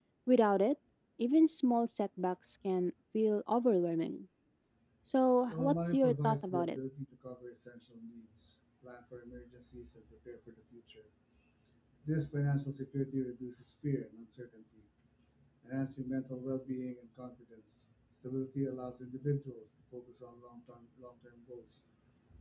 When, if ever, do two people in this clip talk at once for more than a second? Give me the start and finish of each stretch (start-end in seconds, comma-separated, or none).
5.5-6.8